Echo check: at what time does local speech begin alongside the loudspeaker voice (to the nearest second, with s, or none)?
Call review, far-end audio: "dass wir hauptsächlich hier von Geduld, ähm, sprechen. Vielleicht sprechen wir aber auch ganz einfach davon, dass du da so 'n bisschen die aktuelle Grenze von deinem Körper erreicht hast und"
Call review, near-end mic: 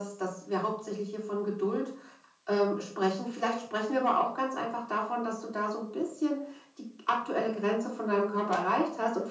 none